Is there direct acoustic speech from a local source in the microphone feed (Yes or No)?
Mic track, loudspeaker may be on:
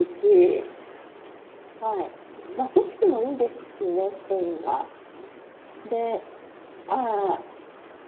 No